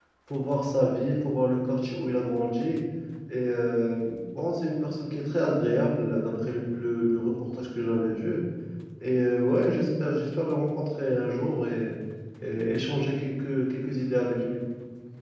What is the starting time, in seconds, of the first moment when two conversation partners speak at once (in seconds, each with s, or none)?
none